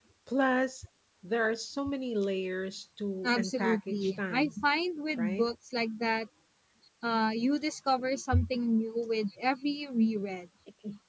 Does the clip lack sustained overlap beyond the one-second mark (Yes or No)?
No